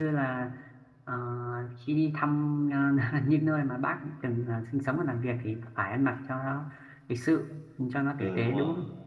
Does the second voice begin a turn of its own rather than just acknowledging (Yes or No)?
Yes